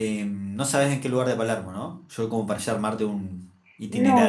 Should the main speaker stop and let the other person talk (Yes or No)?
Yes